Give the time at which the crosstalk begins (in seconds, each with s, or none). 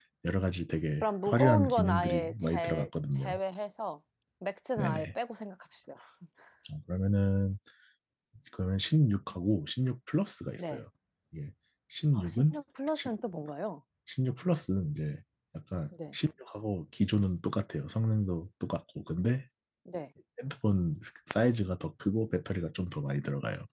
1.0 s